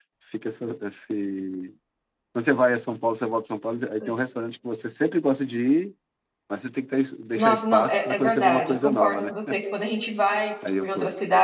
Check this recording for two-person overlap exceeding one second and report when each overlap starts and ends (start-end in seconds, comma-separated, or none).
7.3-9.3